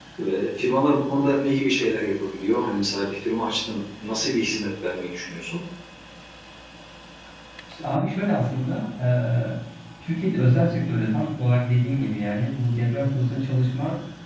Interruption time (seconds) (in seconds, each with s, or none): none